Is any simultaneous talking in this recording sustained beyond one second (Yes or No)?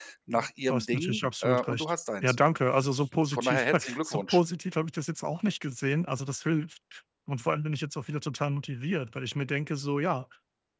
Yes